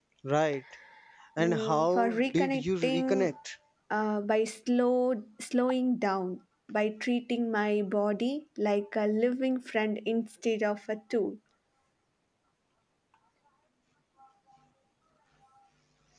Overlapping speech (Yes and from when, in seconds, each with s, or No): Yes, from 1.4 s